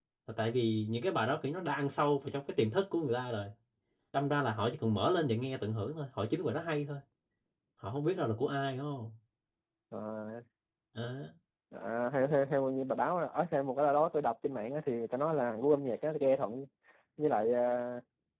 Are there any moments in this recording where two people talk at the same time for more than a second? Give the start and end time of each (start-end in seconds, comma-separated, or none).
none